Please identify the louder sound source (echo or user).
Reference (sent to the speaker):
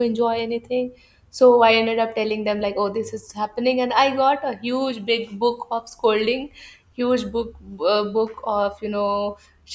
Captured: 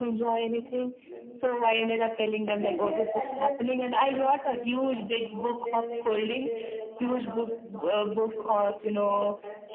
echo